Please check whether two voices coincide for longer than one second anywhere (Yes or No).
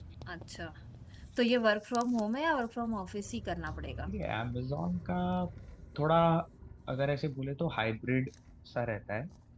No